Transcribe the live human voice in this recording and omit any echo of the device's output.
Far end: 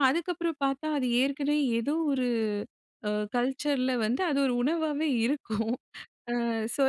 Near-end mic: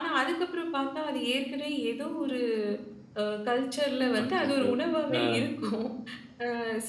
அச்சச்சோ! அ.

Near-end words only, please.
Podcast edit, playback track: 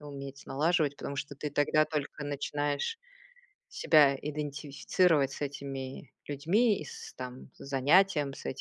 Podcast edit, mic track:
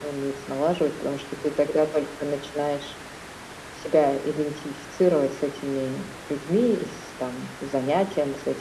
none

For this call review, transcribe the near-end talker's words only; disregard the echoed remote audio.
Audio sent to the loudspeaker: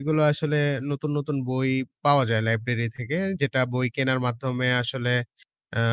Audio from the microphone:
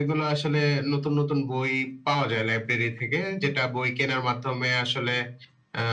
none

